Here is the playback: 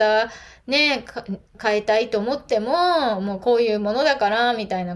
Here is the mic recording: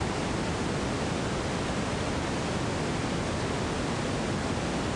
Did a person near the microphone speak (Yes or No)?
No